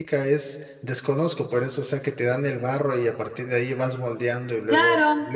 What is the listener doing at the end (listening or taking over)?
taking over